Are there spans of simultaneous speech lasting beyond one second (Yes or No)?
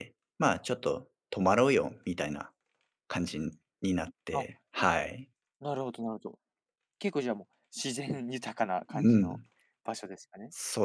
No